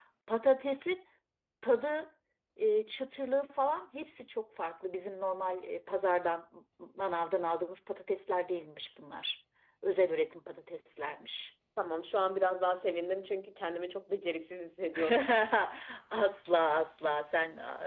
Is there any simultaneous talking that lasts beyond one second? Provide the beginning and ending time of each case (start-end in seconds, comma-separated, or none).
none